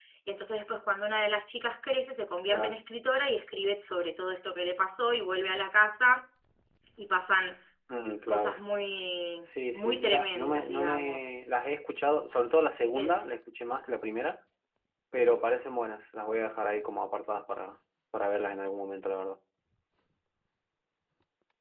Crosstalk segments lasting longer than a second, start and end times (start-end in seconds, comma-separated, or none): 9.7-11.3